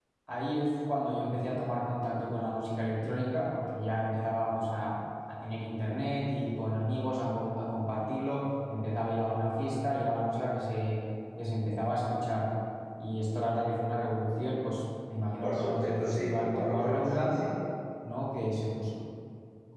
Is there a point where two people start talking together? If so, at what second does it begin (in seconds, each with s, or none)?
15.4 s